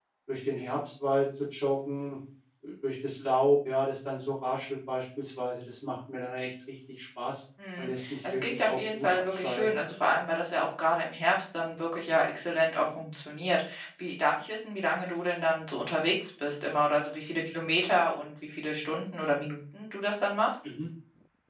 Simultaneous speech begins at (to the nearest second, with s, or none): 8 s